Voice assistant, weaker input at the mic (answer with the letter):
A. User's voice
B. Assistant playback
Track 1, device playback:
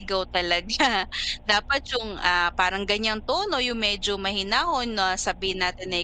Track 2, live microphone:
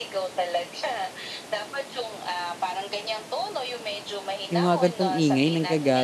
B